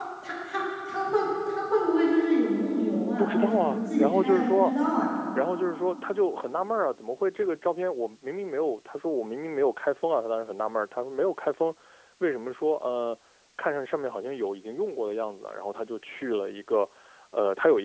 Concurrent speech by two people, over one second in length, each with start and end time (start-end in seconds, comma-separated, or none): 3.2-4.7